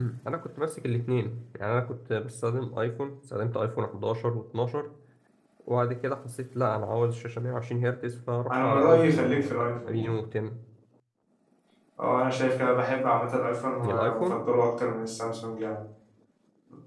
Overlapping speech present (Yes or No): Yes